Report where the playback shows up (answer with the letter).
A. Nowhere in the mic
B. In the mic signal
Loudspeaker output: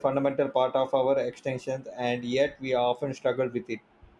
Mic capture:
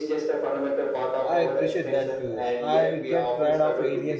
B